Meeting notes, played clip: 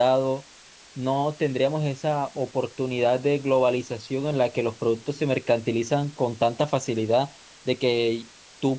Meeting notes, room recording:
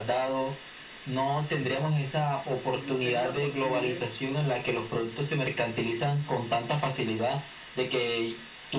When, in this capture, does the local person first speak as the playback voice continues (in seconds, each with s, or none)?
2.7 s